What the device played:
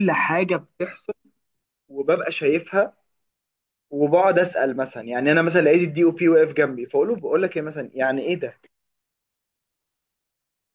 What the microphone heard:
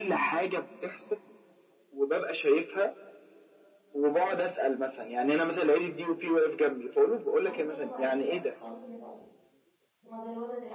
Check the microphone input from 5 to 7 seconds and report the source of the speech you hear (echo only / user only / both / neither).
echo only